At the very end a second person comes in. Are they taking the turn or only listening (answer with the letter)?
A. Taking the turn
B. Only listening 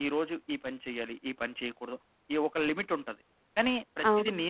B